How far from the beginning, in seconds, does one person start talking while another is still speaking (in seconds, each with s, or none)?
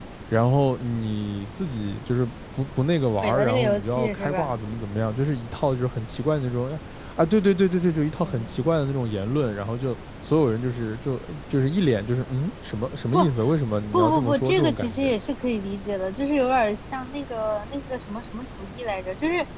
3.2 s